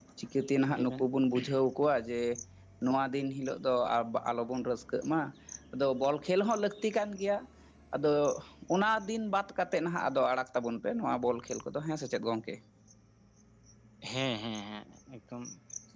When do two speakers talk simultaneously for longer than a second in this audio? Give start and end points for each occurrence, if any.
none

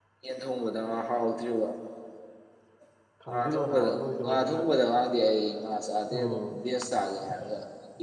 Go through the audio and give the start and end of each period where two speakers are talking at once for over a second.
3.3-4.6

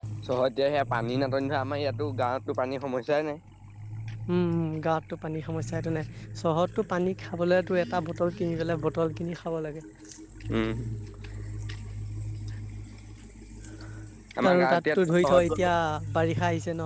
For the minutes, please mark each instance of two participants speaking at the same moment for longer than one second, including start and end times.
14.5-15.7

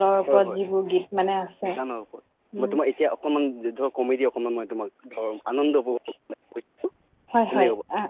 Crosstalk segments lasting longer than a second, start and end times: none

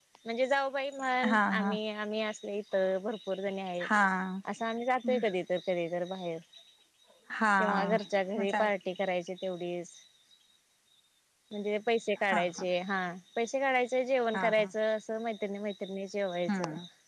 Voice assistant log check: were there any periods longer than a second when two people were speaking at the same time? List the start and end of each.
none

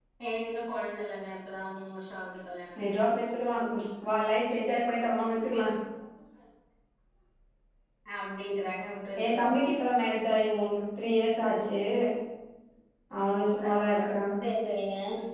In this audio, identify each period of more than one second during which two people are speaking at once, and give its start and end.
none

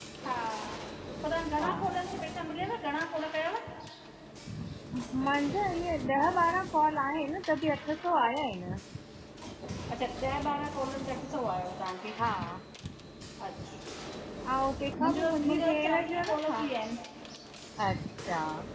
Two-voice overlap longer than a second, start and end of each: 15.0-16.6

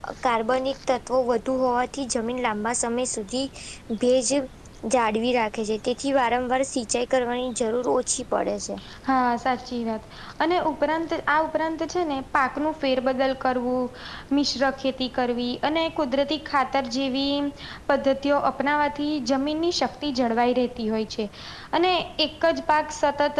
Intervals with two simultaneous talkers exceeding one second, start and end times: none

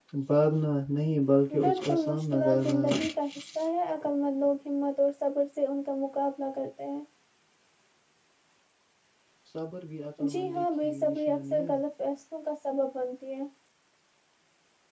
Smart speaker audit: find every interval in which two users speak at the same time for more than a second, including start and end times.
1.6-3.0, 10.3-11.7

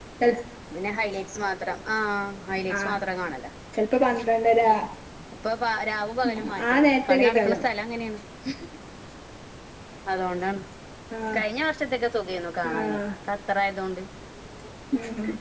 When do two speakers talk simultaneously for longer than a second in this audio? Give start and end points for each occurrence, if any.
6.3-7.6

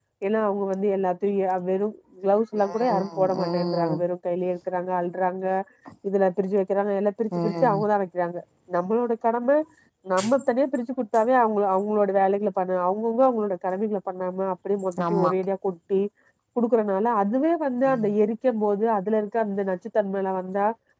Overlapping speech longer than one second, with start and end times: 2.6-4.0

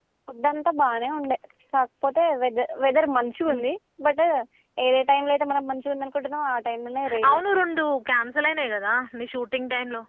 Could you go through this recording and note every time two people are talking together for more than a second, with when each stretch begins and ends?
none

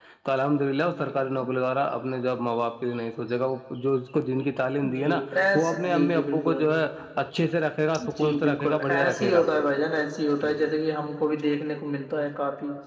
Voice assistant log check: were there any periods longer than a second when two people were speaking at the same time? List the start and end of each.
4.9-6.6, 8.2-9.4

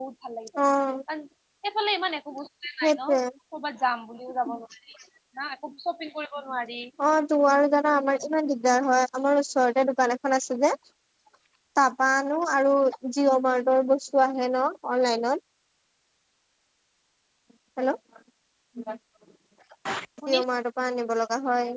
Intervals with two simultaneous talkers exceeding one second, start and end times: none

